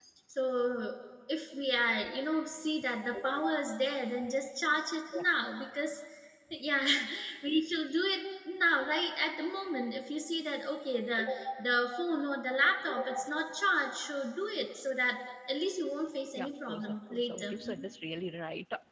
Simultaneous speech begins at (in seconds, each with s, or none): 16.3 s